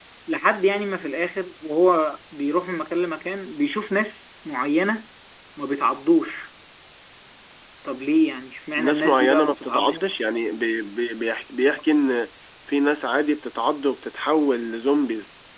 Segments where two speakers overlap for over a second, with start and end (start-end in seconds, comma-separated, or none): 8.8-10.0